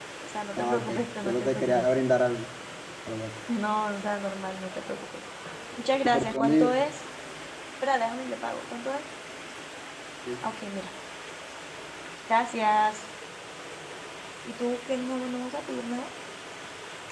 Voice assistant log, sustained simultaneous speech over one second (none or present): present